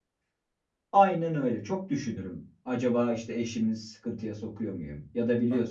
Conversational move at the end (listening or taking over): listening